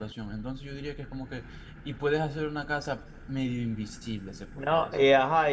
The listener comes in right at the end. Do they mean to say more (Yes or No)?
Yes